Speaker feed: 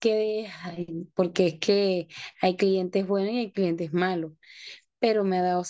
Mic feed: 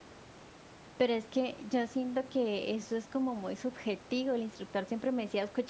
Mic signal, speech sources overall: user only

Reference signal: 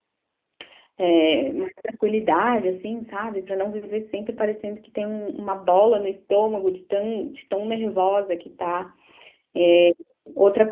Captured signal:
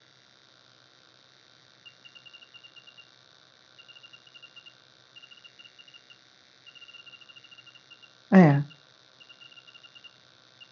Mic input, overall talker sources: user only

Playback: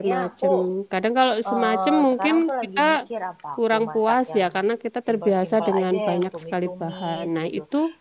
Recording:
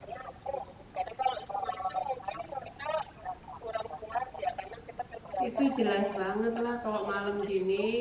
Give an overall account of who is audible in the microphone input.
both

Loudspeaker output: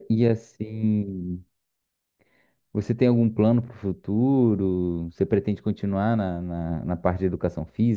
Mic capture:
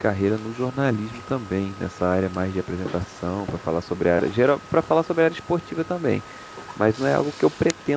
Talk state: user only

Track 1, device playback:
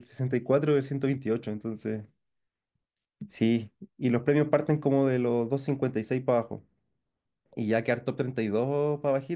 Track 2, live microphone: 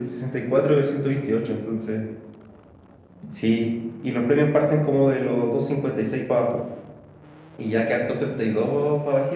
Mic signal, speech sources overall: echo only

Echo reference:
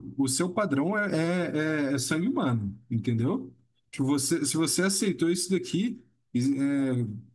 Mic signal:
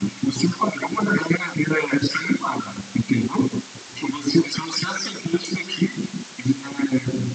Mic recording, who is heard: echo only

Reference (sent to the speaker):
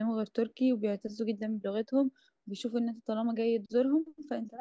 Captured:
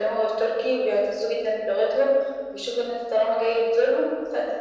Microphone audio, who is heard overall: echo only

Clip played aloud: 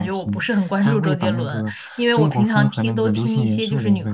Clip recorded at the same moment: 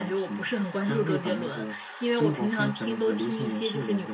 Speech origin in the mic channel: echo only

